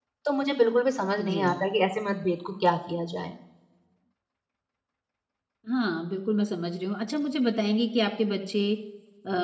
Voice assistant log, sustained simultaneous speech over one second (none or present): none